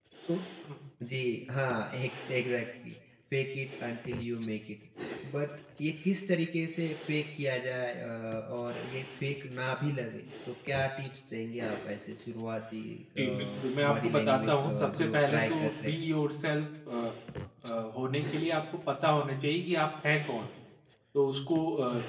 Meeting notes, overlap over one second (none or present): present